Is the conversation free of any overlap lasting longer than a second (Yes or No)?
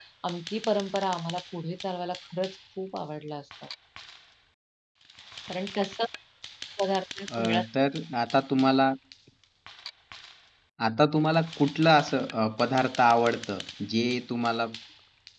Yes